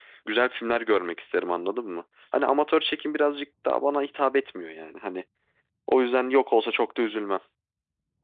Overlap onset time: none

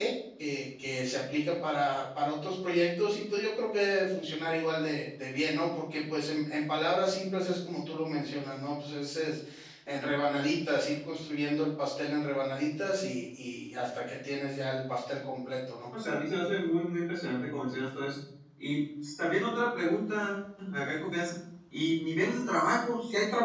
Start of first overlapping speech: none

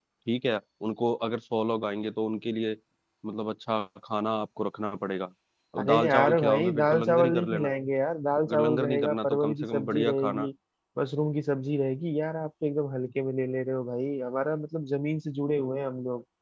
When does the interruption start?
6 s

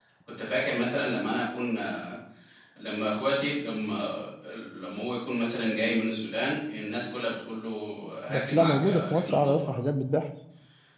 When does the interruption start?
8 s

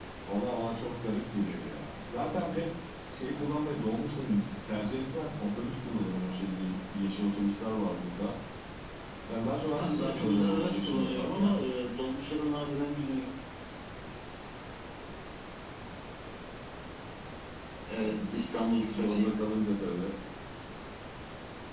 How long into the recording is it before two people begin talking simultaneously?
10 s

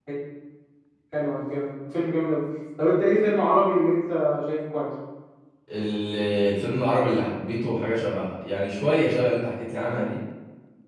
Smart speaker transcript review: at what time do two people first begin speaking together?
none

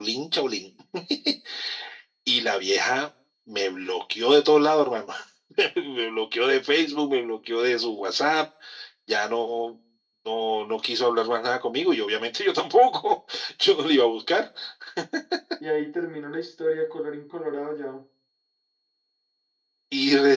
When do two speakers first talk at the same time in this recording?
none

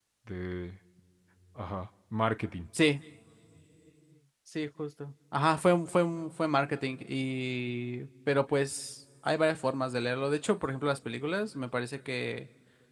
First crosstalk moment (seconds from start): none

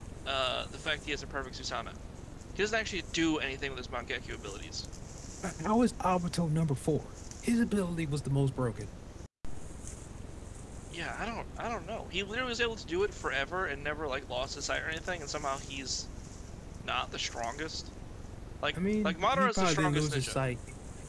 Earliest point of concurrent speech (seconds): 19 s

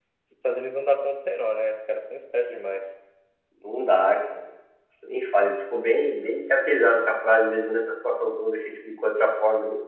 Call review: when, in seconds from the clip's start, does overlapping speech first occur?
none

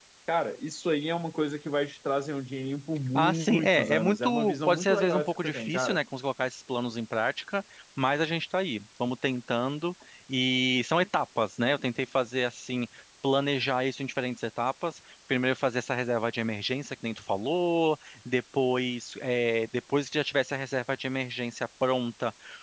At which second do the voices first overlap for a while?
3 s

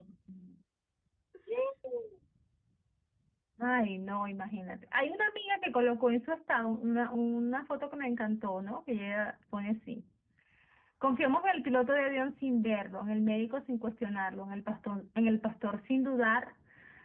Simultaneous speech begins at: none

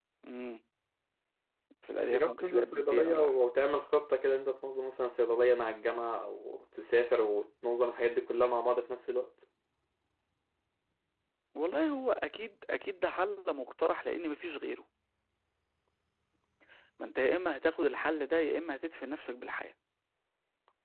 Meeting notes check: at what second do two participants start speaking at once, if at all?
2 s

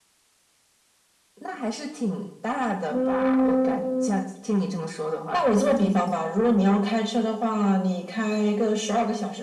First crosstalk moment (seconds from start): 3 s

